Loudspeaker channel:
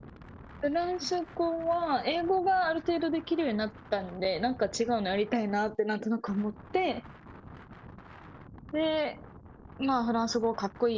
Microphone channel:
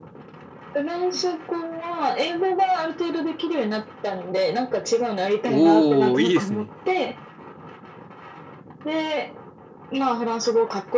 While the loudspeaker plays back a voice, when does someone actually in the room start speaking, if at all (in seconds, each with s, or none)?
5.4 s